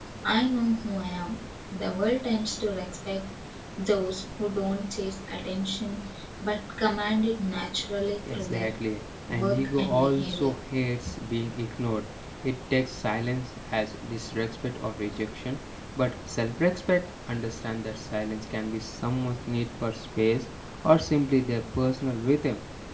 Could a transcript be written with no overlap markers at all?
No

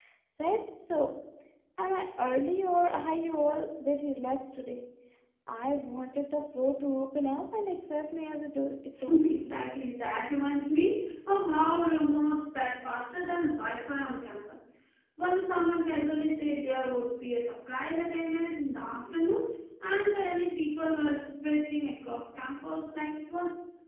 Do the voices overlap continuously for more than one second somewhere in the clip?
No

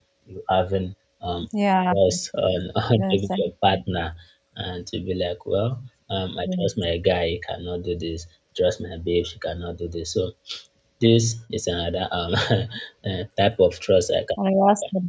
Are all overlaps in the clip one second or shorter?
Yes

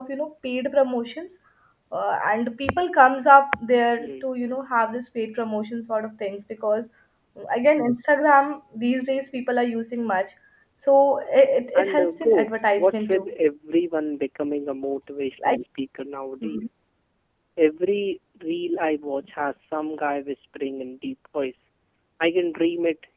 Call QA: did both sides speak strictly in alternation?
No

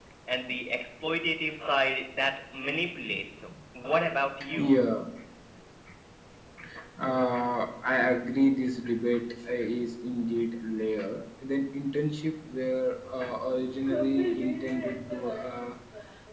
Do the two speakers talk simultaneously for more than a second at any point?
No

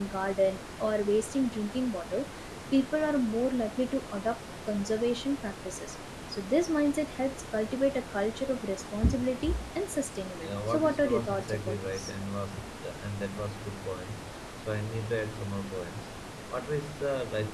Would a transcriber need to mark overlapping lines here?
Yes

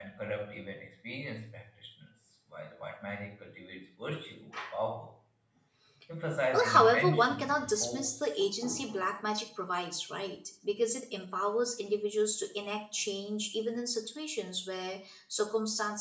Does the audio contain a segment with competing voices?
Yes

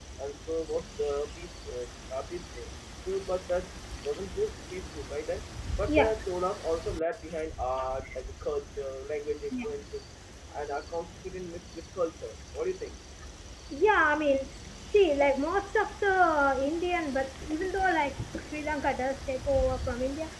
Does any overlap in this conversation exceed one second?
No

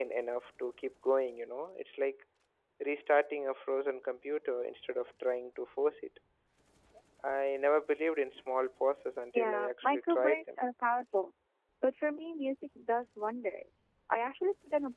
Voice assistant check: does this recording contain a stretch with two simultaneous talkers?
Yes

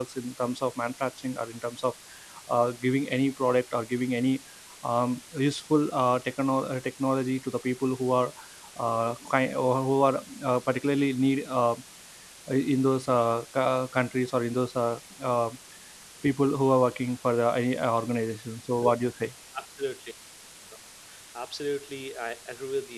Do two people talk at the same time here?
No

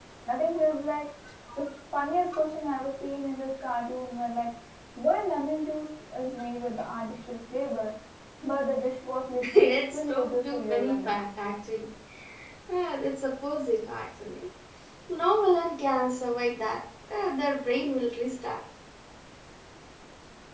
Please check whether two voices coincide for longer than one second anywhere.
Yes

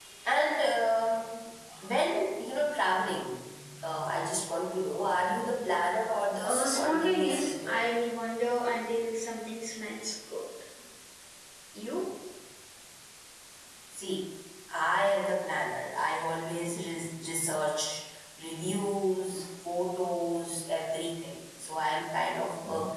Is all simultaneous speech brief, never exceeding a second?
No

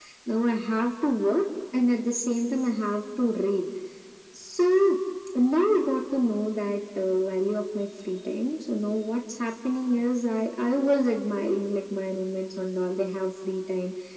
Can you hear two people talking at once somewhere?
No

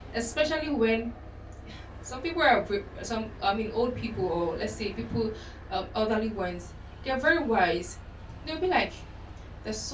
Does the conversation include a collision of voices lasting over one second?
No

